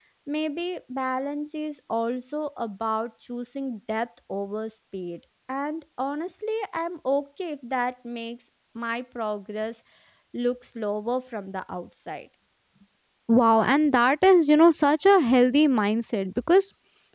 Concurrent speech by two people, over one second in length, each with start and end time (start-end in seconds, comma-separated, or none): none